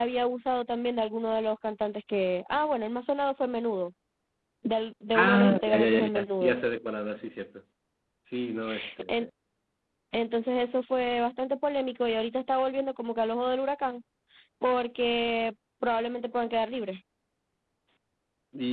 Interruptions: present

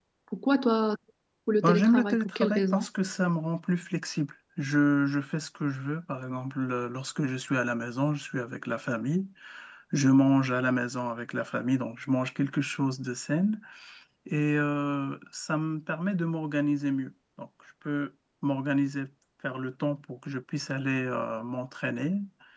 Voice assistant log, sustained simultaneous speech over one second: present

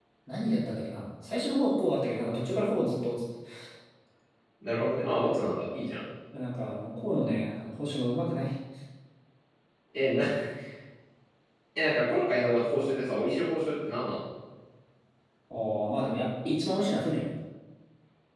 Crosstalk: none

